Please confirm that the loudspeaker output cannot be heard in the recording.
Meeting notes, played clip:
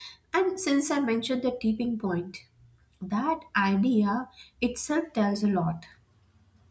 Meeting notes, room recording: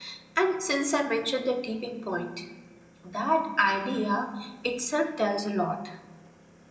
No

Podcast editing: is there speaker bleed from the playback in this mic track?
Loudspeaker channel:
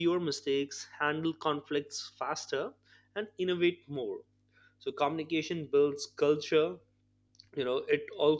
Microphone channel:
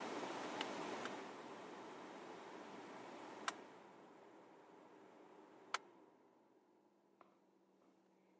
No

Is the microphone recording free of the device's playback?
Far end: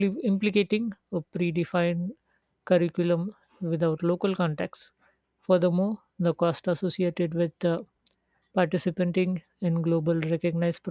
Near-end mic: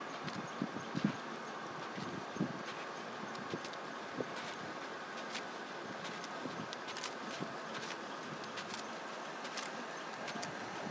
Yes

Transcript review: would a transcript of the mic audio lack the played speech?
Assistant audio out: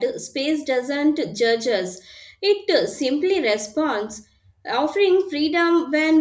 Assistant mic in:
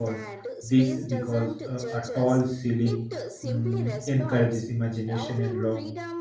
No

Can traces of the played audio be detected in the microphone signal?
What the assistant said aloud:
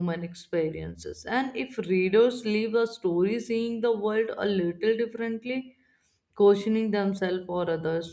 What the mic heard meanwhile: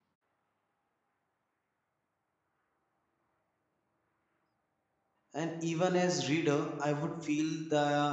No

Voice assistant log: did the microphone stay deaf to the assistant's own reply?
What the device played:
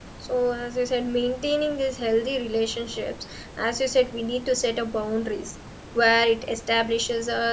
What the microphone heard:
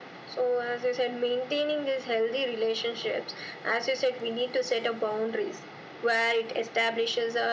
No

